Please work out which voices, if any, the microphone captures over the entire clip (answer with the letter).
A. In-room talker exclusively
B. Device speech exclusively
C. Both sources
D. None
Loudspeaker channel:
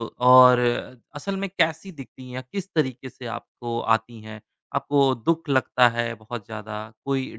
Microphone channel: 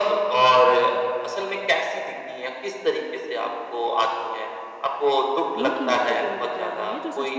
C